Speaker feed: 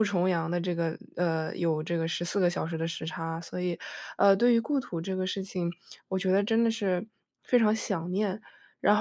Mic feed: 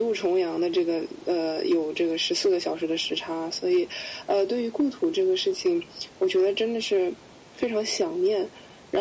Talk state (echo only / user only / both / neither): echo only